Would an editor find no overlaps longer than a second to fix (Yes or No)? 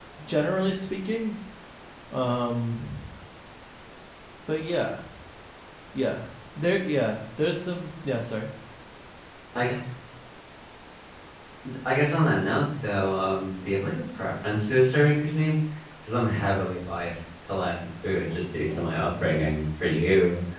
Yes